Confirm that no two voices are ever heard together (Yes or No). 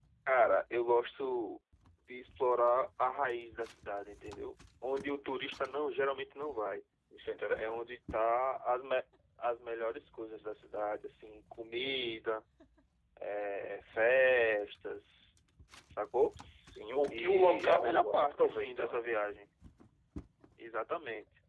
No